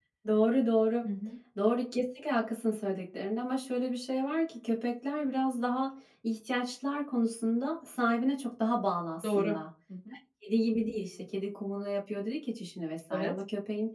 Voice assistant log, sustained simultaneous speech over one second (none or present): none